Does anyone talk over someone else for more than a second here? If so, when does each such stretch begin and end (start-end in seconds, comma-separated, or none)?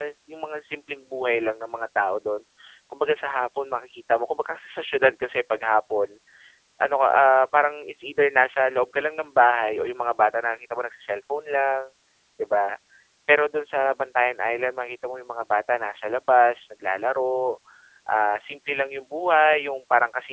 none